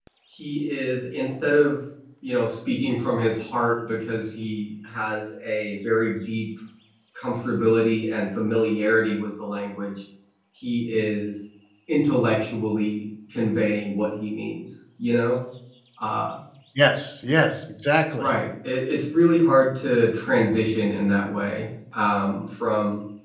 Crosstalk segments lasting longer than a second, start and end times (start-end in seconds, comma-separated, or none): none